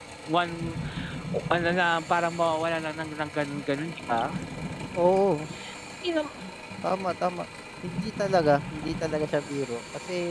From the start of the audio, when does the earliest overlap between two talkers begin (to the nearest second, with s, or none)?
none